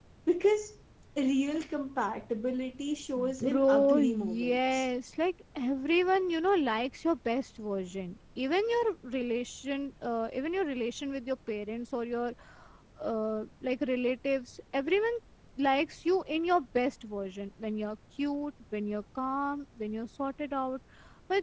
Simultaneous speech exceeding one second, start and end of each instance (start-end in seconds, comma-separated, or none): 3.2-4.9